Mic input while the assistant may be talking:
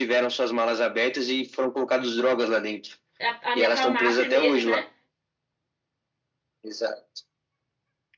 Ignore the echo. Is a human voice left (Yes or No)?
Yes